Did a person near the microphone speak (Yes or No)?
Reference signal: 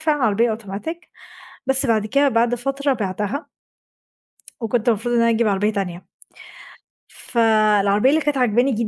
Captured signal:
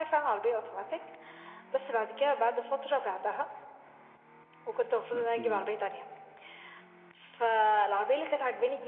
Yes